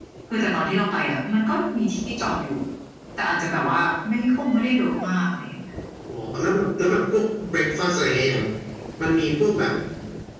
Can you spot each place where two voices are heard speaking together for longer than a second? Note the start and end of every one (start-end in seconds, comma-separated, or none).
none